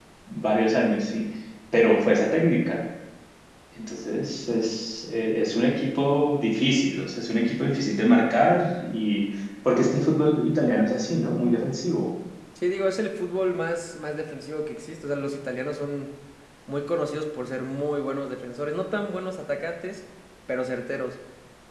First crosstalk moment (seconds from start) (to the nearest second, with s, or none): none